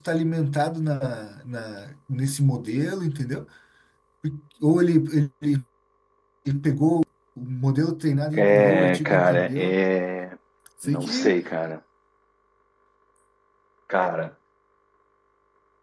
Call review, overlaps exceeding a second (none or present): present